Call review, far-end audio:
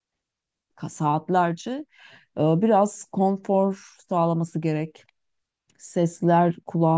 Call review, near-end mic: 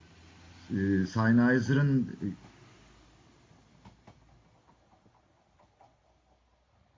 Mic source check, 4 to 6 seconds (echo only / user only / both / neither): neither